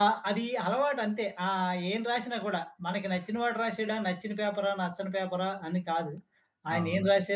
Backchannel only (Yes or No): Yes